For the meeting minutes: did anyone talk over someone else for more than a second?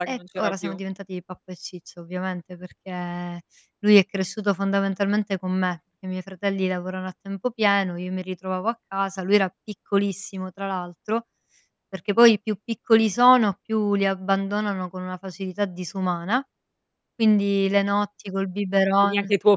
No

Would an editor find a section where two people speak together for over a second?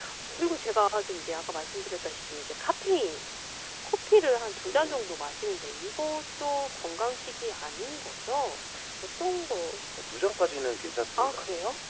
No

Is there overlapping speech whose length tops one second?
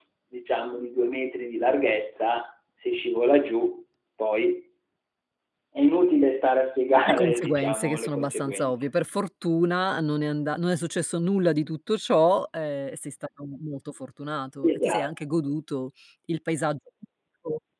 Yes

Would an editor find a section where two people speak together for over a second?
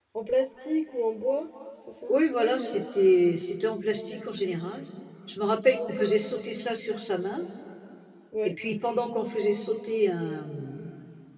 No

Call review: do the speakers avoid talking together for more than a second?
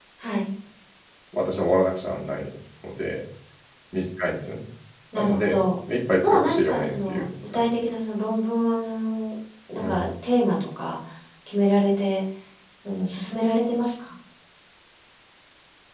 No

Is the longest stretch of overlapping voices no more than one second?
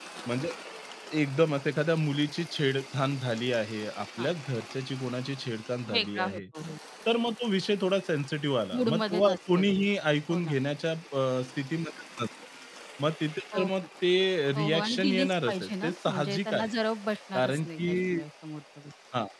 No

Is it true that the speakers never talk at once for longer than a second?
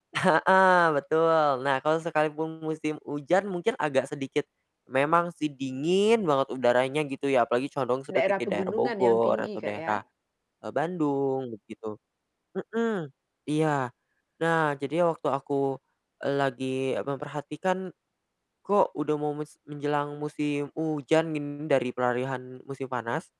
No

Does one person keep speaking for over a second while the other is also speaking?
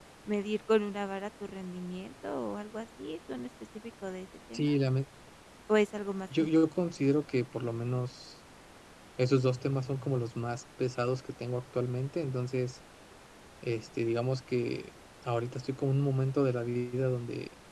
No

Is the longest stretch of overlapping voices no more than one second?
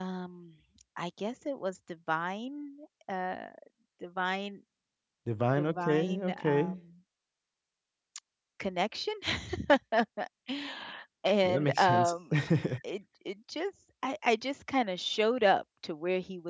No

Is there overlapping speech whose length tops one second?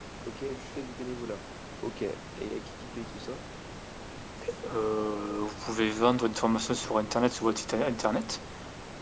No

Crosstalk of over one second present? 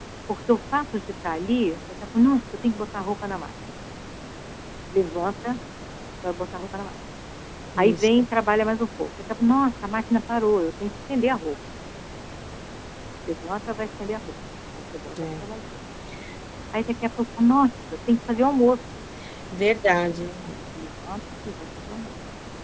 No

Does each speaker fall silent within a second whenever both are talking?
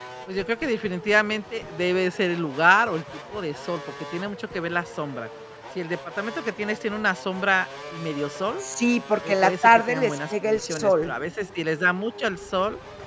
No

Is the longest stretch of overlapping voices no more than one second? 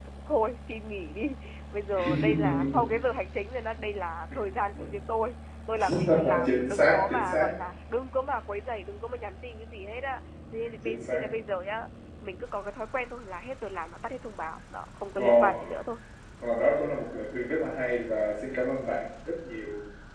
No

